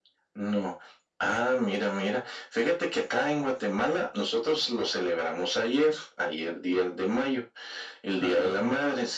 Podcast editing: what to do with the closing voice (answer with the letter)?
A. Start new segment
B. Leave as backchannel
B